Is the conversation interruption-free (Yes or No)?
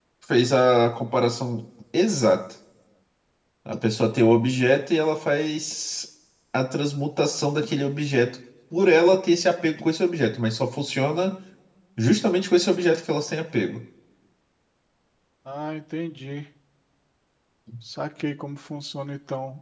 Yes